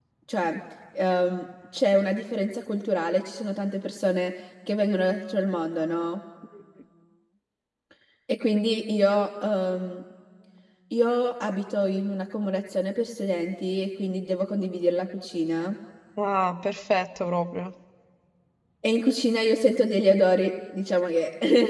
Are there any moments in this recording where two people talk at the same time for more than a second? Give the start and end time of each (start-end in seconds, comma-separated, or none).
none